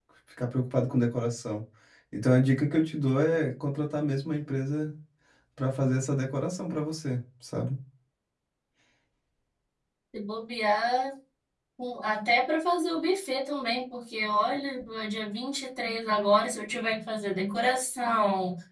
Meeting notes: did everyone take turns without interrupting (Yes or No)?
Yes